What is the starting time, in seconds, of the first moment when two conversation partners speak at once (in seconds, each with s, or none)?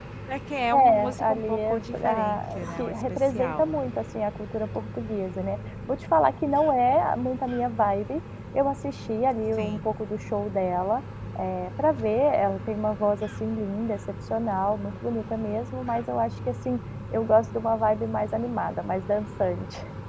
0.7 s